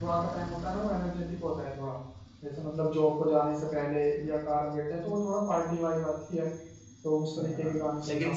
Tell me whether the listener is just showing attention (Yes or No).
No